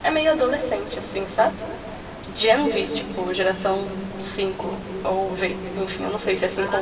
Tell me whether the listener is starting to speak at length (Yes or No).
Yes